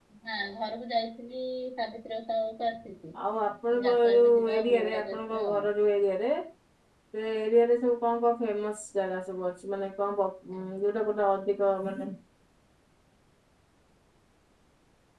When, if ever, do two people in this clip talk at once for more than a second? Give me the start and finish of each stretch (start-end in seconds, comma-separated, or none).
3.8-5.7